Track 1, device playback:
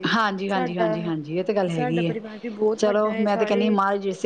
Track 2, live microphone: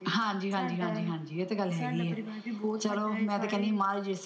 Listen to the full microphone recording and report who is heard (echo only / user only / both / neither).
echo only